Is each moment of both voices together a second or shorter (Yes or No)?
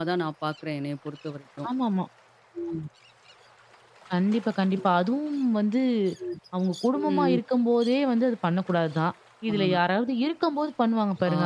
Yes